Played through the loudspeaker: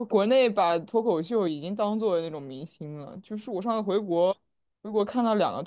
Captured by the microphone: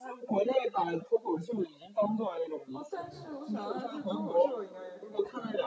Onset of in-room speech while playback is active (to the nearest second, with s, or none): 3 s